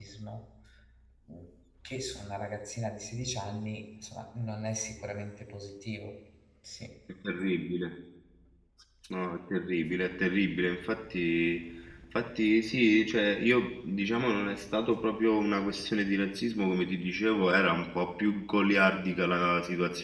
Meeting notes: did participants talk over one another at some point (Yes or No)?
No